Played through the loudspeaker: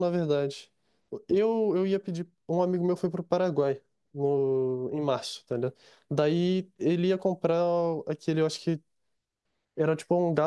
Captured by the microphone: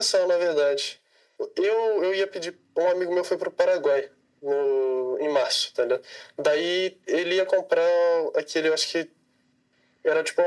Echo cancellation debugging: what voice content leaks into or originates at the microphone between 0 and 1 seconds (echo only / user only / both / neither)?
echo only